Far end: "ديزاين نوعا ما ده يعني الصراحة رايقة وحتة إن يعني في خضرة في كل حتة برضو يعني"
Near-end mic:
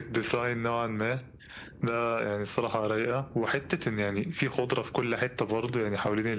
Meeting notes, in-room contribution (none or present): none